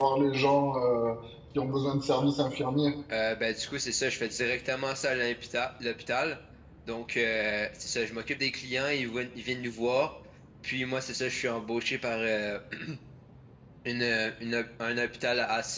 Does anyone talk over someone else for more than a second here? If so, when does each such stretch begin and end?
none

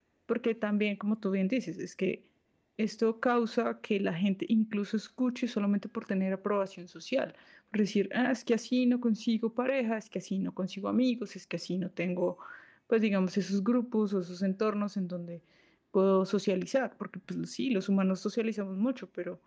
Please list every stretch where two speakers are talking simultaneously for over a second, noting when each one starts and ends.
none

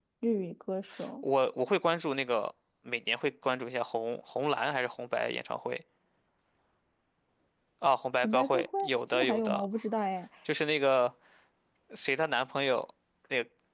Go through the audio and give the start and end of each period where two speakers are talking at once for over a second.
8.2-9.7

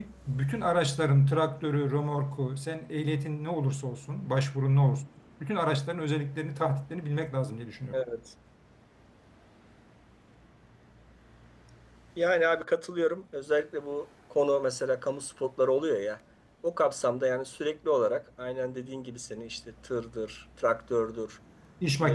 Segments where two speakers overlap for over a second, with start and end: none

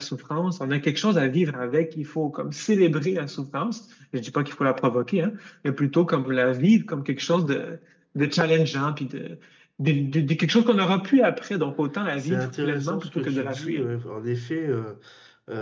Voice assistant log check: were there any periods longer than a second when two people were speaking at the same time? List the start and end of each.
12.2-13.8

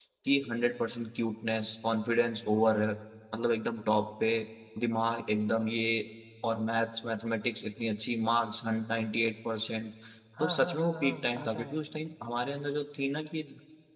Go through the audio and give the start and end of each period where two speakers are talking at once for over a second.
10.4-11.8

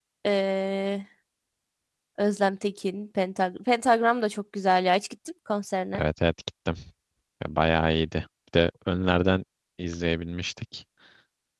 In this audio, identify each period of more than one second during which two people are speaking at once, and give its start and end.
none

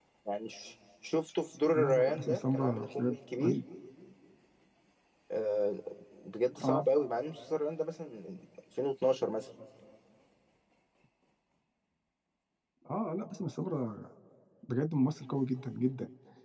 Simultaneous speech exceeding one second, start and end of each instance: 1.8-3.6

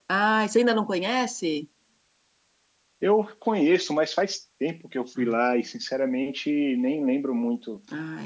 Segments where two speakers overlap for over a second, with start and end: none

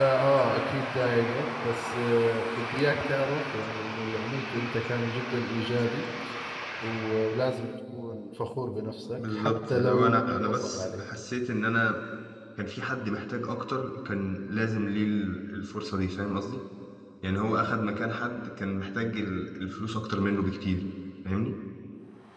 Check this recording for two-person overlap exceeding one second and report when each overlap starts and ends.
9.2-11.0

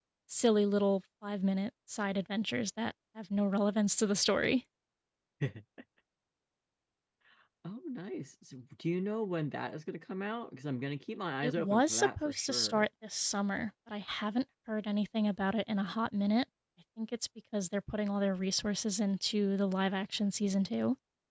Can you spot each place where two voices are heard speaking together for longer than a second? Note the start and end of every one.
11.4-12.8

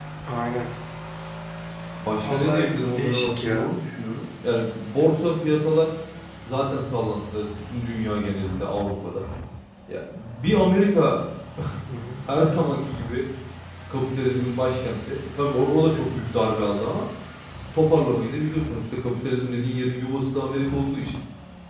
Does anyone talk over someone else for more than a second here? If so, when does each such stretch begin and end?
2.1-3.7

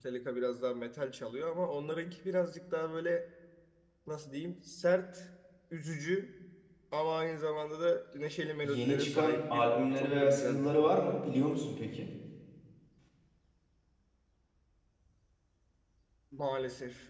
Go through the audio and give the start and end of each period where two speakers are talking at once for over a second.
8.6-11.1

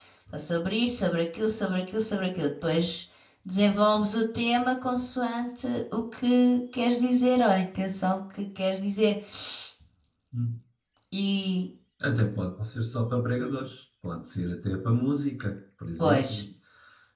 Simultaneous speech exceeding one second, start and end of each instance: none

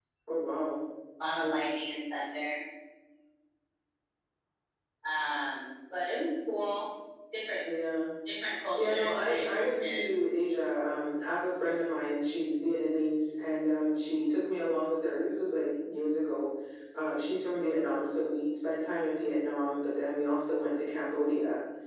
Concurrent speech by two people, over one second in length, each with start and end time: 8.8-10.0

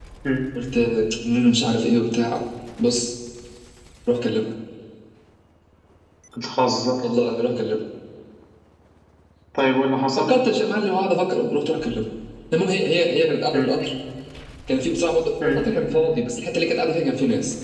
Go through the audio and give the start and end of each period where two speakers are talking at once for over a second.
none

